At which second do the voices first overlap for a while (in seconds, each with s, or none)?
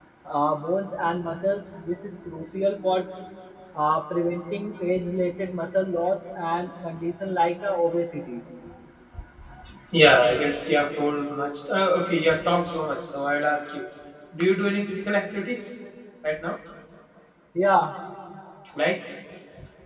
none